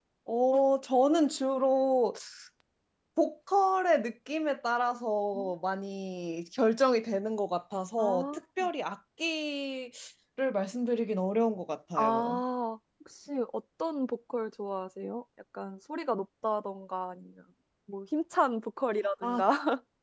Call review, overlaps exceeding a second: none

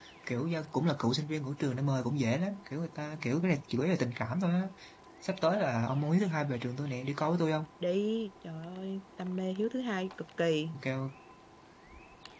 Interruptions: none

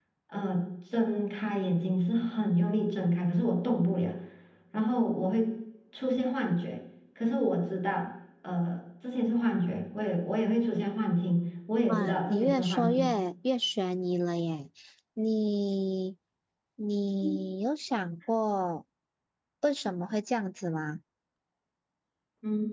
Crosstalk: present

